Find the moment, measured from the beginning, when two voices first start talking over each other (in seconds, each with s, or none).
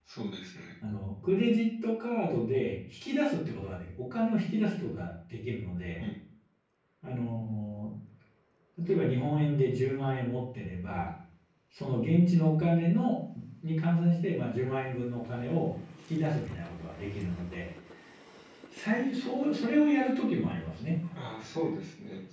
none